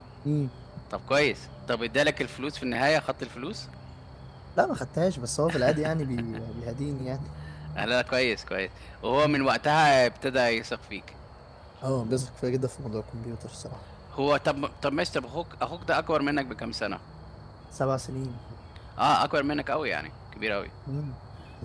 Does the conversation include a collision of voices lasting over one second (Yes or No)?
No